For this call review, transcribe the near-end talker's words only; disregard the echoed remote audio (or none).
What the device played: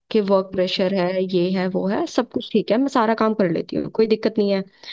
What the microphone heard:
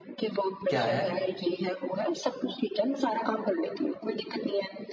क्या है